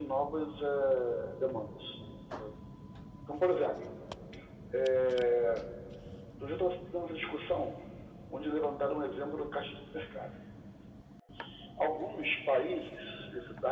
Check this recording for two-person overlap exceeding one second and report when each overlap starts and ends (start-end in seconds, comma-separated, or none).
none